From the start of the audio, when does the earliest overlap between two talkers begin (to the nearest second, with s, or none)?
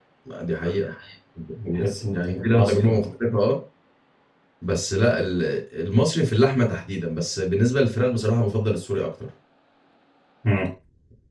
2 s